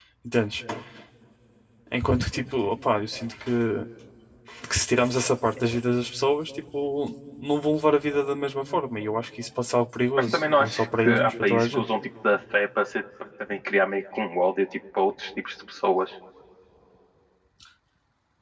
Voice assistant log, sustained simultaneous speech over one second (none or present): present